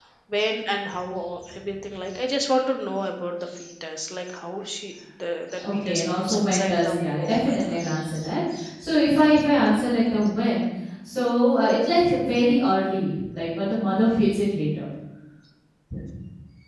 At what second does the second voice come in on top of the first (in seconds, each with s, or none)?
5.6 s